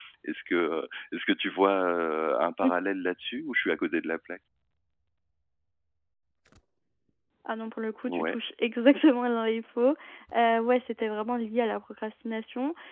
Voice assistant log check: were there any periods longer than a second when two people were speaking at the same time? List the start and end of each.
none

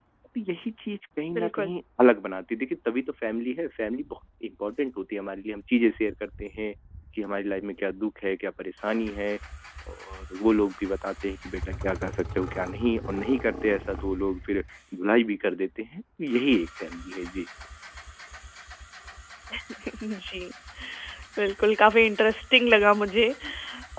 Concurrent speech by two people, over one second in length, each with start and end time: none

